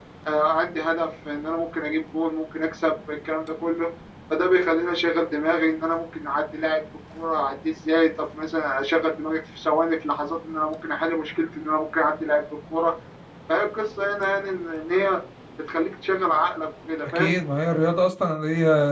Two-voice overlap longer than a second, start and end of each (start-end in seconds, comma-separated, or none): none